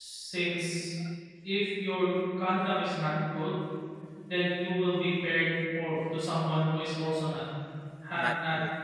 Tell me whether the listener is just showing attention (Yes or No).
Yes